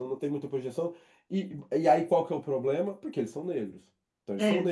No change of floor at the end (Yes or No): Yes